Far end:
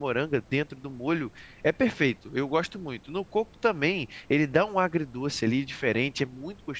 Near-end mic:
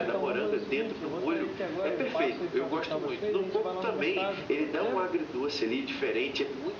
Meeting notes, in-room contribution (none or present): present